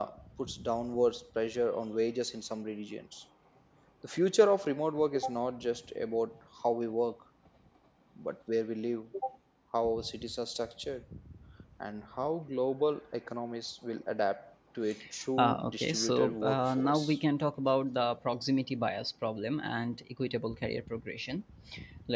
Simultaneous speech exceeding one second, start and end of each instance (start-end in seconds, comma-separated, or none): 15.4-17.2